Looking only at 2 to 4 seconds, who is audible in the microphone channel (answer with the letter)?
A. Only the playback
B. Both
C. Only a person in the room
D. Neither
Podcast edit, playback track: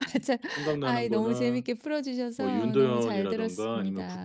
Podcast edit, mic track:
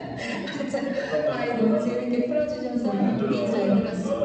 B